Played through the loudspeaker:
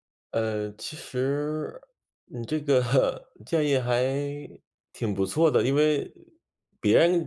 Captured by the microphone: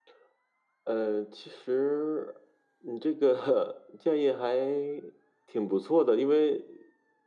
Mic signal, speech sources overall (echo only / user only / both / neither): echo only